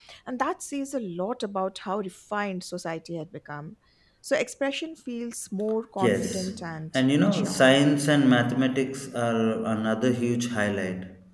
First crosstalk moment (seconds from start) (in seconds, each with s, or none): 6.0 s